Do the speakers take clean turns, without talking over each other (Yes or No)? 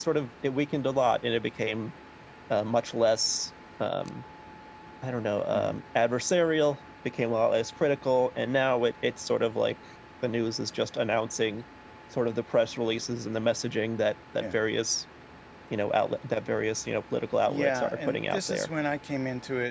No